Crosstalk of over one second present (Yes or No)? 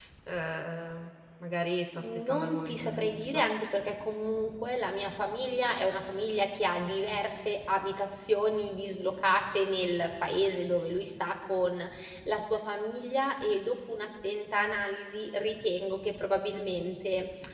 Yes